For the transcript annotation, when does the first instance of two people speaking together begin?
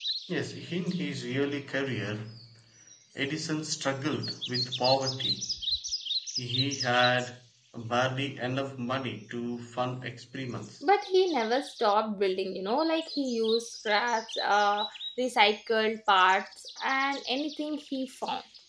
none

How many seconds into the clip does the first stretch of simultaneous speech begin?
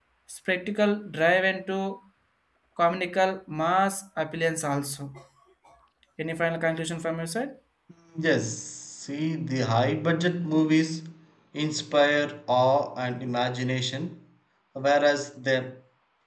none

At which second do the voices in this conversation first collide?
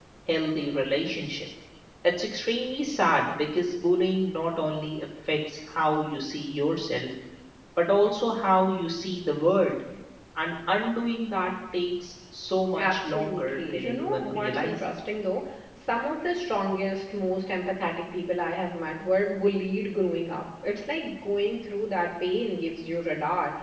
12.8 s

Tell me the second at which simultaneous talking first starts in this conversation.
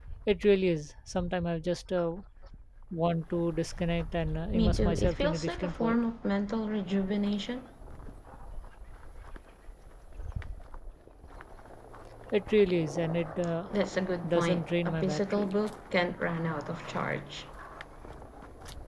4.5 s

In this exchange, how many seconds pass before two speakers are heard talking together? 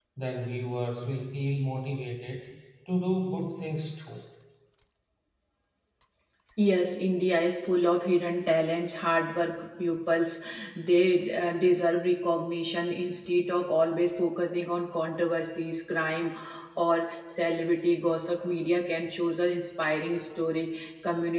none

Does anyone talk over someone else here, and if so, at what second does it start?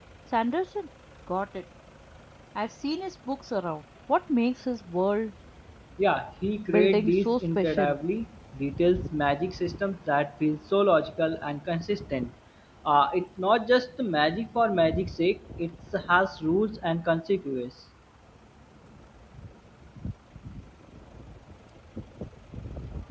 6.7 s

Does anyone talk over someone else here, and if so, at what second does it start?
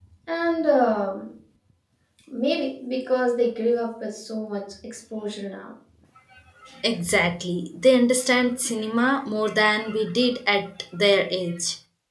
none

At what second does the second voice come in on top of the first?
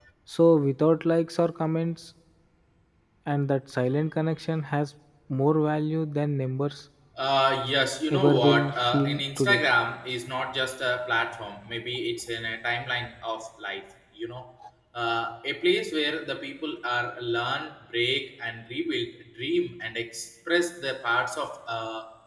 8.1 s

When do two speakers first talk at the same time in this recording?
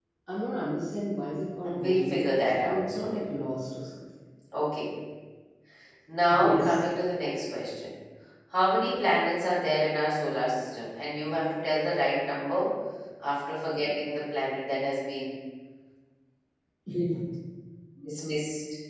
1.6 s

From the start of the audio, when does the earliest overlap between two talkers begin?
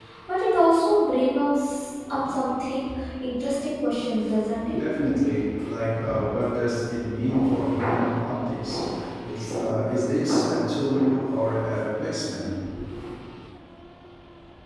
none

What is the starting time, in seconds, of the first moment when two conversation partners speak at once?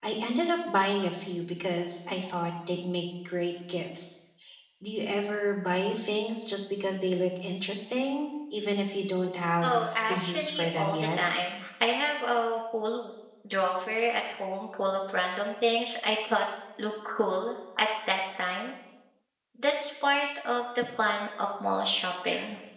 9.6 s

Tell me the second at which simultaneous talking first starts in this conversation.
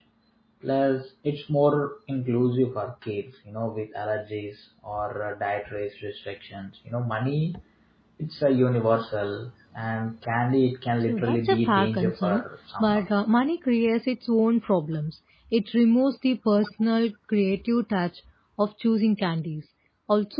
11.1 s

